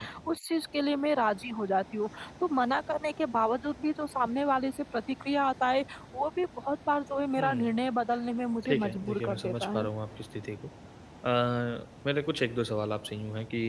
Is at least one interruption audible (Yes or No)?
Yes